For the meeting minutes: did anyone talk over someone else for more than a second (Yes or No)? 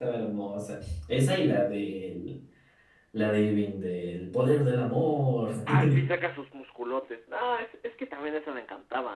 No